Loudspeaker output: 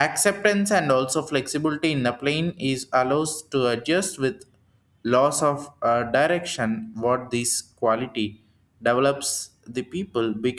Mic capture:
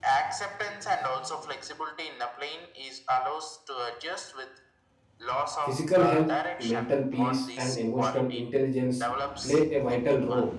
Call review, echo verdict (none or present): present